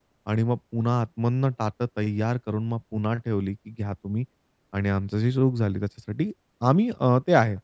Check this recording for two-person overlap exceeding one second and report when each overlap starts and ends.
none

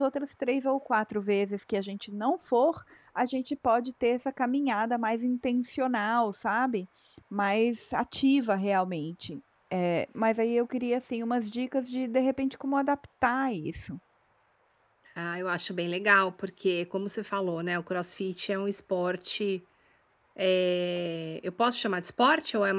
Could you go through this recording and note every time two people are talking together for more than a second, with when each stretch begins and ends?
none

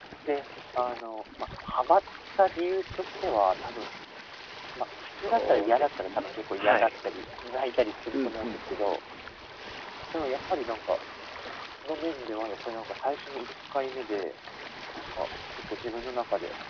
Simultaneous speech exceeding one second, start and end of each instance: 5.2-6.9

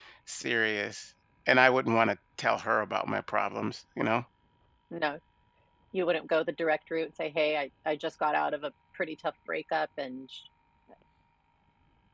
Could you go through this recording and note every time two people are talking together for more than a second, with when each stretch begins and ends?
none

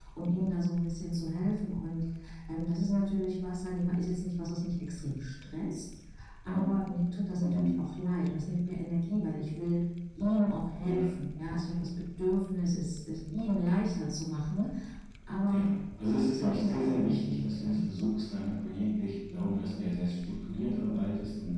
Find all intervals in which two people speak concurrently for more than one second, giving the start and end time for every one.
16.2-17.8

